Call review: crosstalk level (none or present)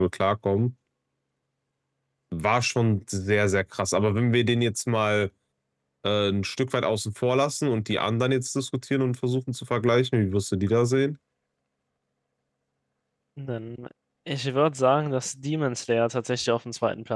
none